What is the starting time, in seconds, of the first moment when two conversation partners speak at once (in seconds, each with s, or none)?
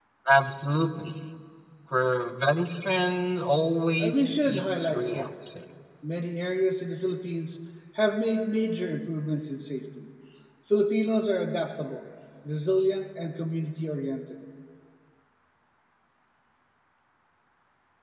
4.0 s